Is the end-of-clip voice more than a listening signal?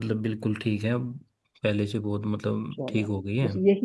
Yes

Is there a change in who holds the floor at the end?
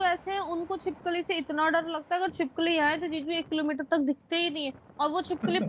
No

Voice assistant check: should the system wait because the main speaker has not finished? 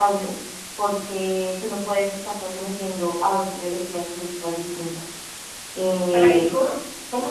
No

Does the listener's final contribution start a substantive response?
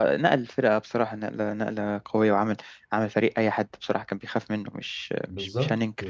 Yes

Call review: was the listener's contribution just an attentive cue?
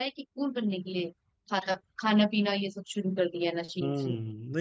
No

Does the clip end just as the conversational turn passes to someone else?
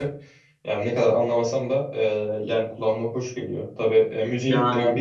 No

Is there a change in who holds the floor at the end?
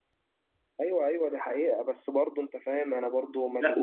Yes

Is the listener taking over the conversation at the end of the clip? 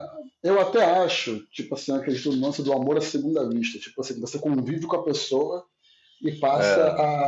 No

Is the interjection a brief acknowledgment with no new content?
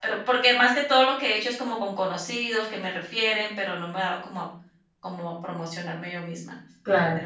No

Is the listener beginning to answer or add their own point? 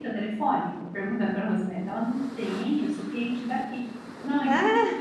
No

